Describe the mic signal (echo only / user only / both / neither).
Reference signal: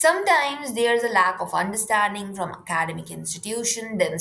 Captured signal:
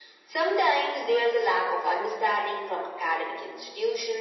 echo only